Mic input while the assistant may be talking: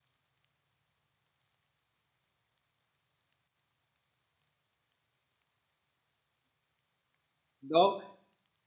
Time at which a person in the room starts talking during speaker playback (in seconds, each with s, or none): 7.6 s